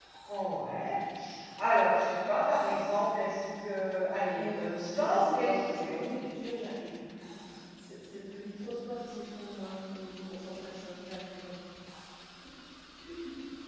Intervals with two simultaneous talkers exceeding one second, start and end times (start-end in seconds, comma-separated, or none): 4.3-6.0